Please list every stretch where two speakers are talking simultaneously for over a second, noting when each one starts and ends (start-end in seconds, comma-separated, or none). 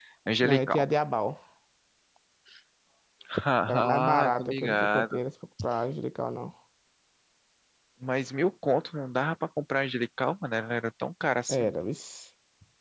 3.8-5.2